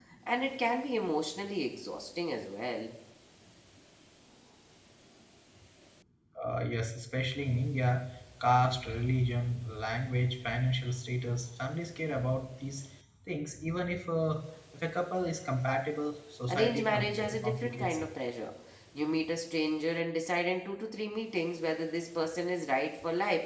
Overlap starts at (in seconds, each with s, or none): 16.5 s